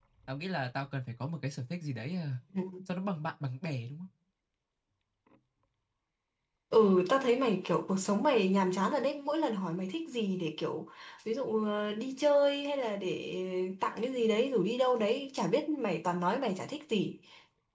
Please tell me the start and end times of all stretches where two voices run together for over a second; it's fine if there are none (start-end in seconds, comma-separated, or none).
none